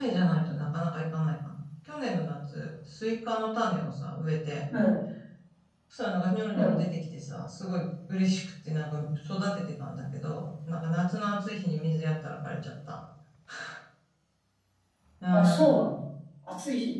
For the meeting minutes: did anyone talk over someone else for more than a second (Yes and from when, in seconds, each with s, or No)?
No